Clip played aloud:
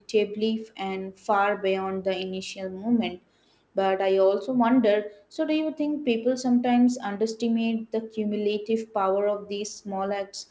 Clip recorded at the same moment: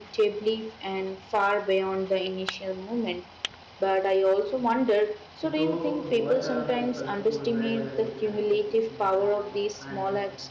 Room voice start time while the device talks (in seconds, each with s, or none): 5.4 s